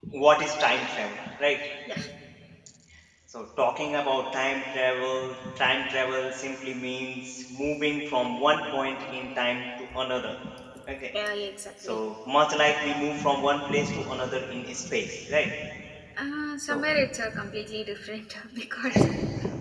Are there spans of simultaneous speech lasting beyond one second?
No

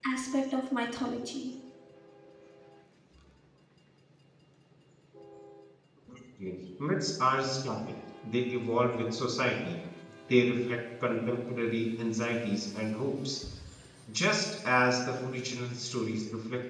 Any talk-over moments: No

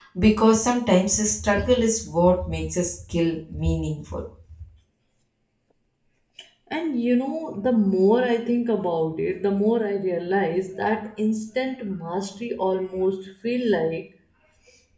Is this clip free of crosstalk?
Yes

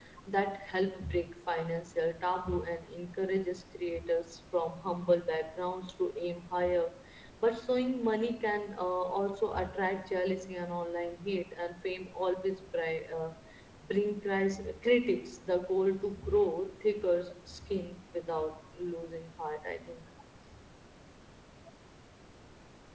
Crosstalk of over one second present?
No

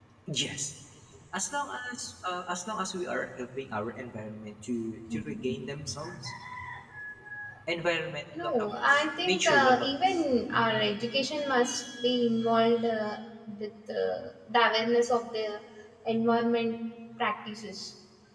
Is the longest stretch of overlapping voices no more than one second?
No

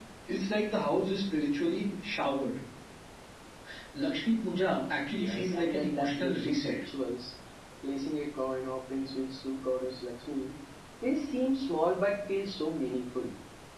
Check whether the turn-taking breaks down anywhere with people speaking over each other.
Yes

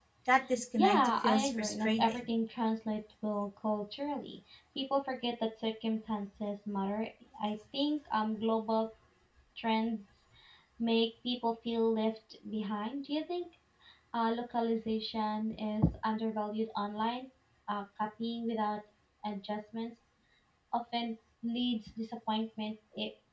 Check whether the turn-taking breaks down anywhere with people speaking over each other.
Yes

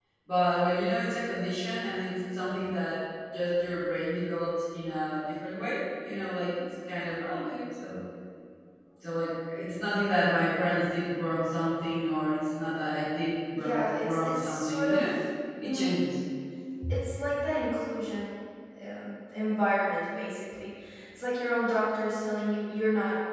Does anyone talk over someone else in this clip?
Yes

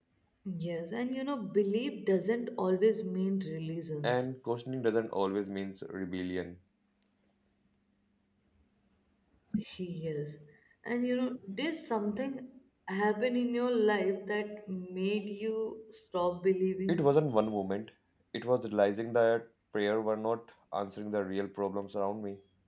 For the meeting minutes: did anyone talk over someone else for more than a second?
No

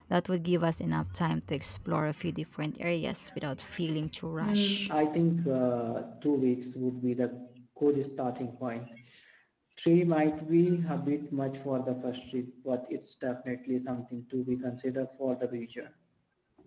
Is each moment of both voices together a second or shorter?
Yes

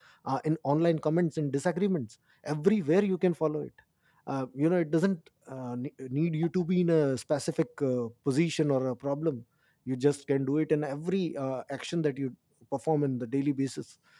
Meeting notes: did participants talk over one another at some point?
No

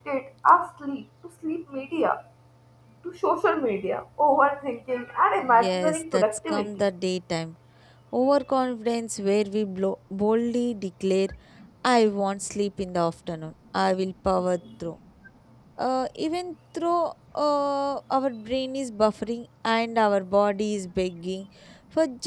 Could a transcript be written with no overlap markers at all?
No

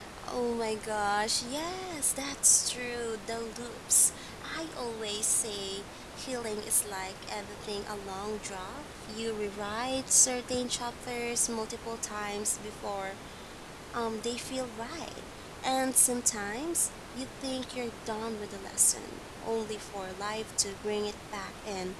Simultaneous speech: No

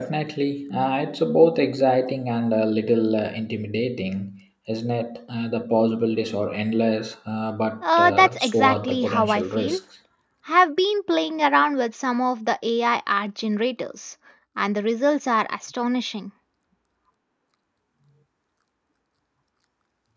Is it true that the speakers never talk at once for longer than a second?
No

